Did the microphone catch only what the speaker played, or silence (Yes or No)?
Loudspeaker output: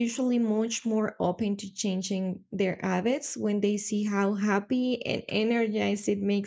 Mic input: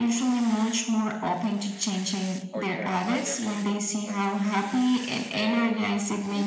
No